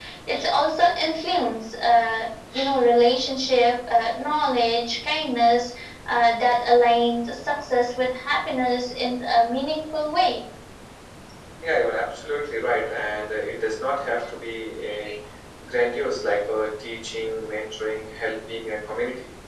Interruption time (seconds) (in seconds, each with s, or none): none